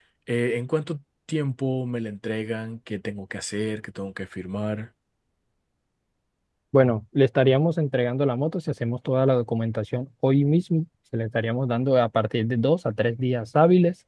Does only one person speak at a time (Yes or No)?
Yes